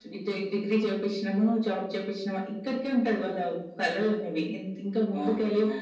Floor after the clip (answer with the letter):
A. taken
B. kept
B